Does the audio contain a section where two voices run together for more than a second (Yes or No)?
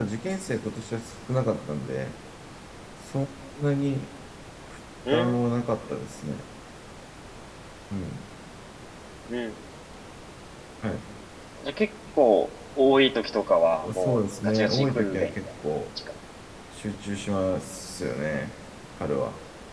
Yes